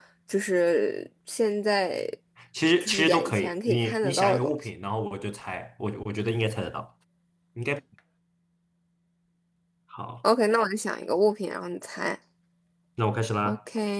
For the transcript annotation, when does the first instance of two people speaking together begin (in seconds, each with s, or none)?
2.8 s